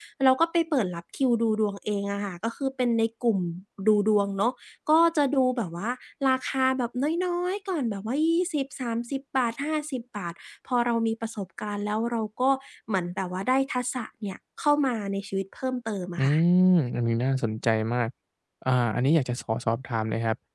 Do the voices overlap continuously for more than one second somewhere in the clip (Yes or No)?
No